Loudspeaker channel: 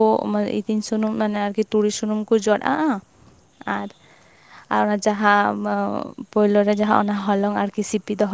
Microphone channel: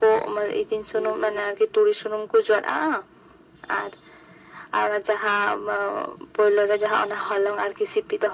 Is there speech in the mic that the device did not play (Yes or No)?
No